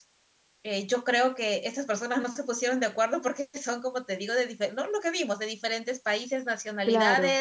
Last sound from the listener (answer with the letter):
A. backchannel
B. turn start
A